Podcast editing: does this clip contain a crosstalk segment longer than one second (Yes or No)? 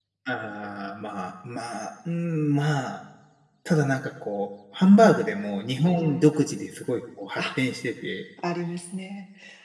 No